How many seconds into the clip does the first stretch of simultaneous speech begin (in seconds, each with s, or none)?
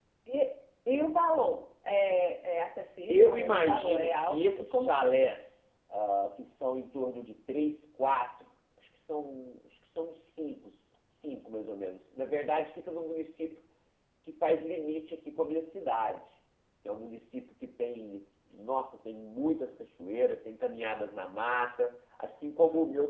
3.1 s